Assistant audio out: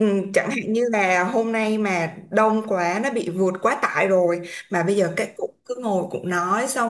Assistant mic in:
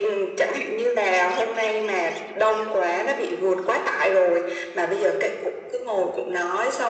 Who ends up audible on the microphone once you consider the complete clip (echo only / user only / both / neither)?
echo only